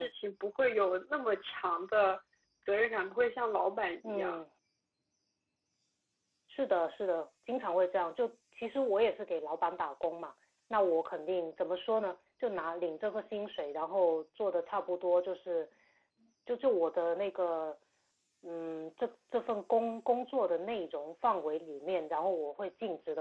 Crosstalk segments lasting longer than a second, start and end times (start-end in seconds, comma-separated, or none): none